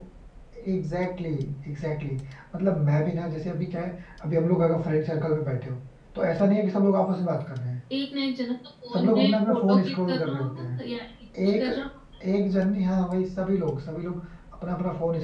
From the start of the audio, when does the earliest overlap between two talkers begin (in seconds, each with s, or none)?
8.9 s